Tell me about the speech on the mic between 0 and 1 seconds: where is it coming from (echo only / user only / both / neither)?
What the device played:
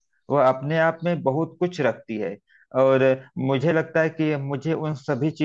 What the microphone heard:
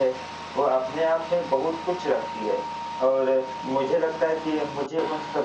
echo only